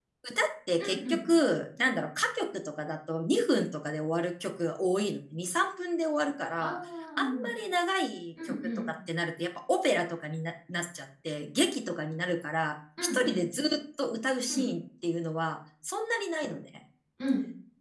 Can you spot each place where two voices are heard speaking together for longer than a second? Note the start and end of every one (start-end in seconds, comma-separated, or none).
none